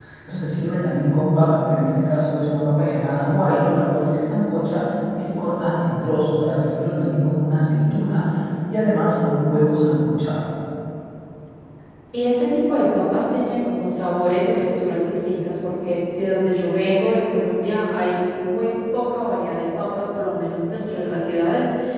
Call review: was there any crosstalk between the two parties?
No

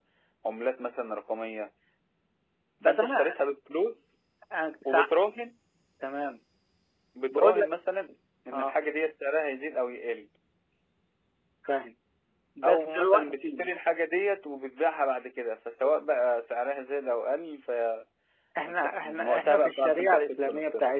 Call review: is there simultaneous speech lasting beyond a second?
Yes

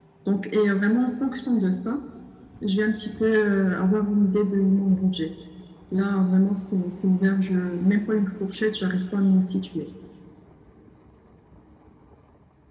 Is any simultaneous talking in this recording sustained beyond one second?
No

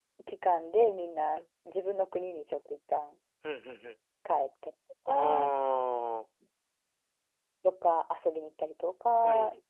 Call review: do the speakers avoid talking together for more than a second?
Yes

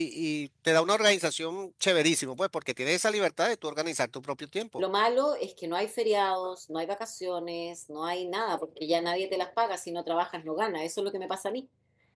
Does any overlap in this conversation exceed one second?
No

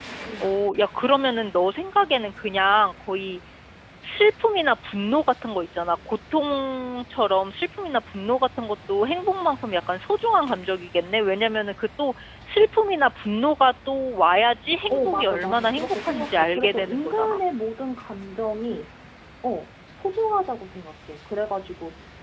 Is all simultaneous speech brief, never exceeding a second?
No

